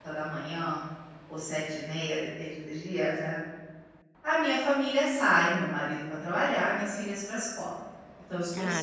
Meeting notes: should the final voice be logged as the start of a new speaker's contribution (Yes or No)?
Yes